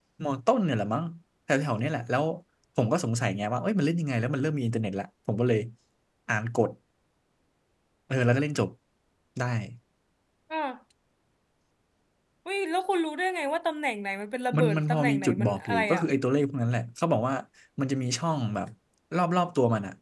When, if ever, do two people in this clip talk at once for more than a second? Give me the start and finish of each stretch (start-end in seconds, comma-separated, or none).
14.6-16.0